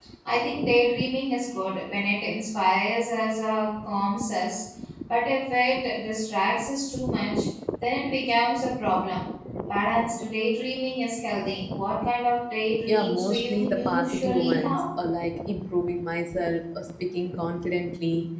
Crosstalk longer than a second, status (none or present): present